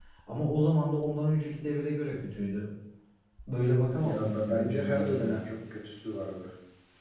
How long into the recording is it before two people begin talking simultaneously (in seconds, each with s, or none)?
4.0 s